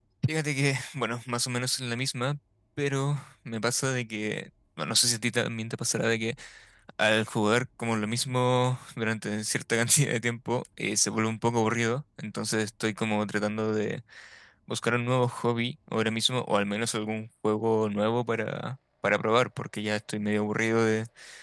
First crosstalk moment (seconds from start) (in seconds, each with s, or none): none